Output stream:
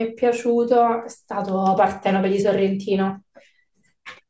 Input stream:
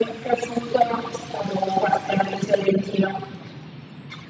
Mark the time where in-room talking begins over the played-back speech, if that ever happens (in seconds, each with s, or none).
none